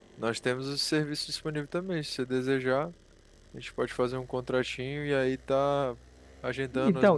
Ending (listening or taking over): listening